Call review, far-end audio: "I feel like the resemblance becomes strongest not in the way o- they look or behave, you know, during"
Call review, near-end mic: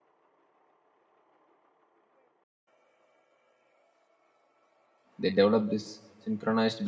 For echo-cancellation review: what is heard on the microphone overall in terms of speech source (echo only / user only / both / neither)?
user only